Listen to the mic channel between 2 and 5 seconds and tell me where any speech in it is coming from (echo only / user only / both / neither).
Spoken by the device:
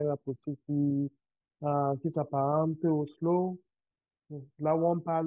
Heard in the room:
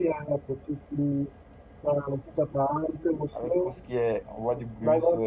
both